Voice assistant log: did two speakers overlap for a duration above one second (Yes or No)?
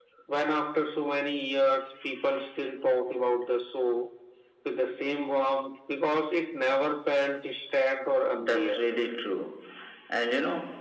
No